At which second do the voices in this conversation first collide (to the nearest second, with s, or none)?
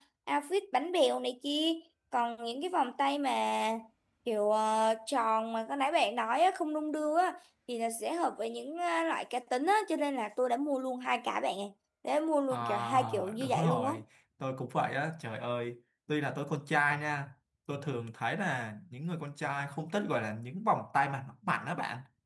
13 s